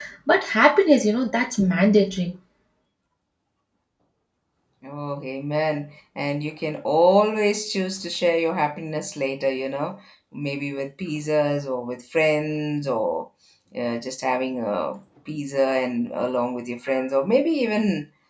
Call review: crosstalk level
none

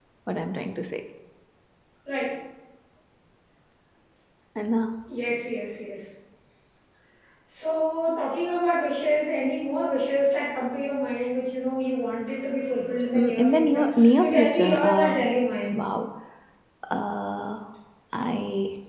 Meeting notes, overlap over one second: present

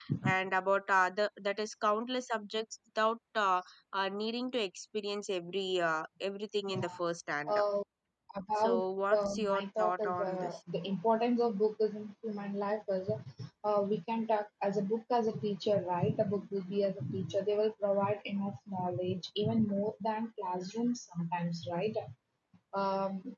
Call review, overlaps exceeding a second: present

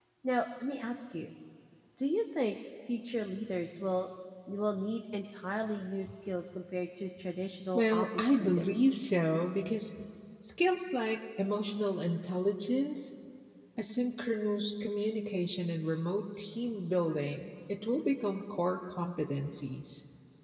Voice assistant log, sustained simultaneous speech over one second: present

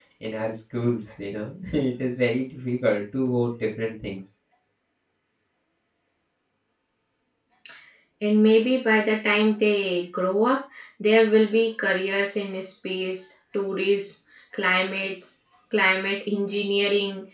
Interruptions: none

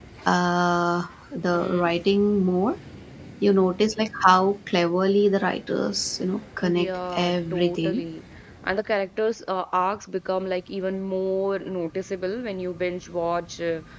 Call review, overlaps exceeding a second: present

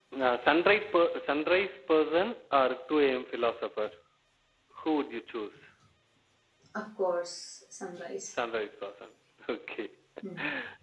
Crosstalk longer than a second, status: none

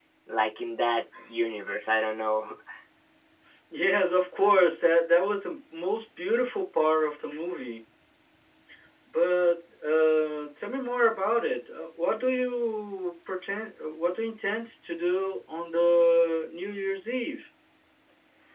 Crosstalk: none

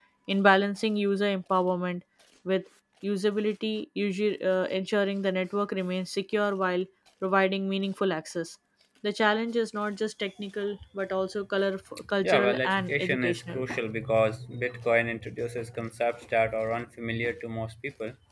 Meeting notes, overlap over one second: present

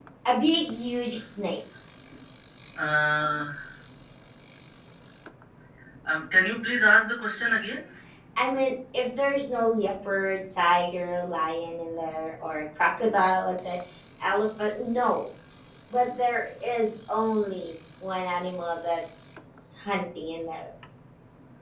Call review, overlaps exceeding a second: none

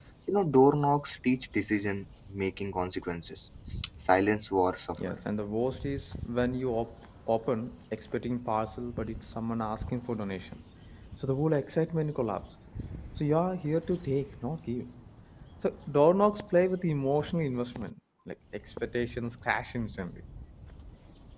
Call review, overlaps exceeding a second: none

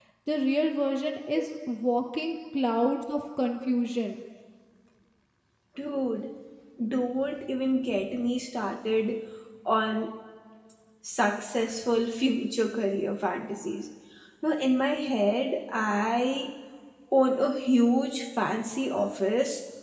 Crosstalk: none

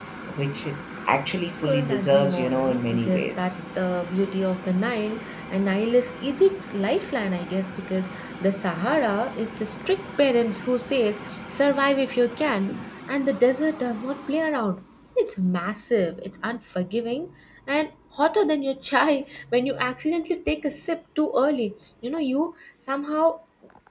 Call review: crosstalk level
present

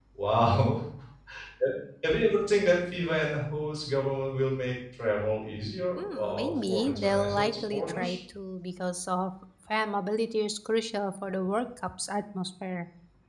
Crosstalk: present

